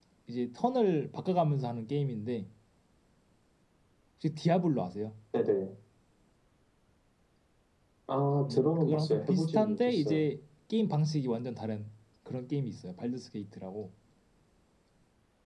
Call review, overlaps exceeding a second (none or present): present